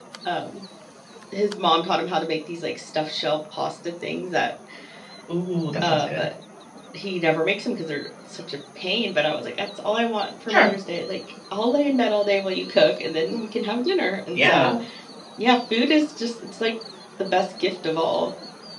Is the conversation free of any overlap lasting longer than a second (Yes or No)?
Yes